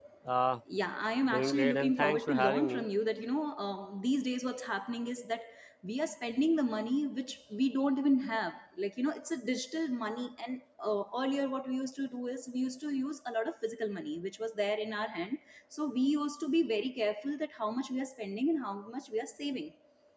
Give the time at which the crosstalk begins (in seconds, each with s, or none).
1.3 s